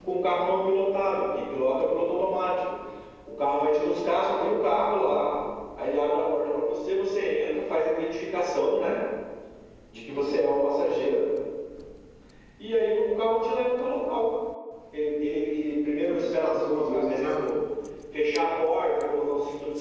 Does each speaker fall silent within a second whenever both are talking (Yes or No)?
No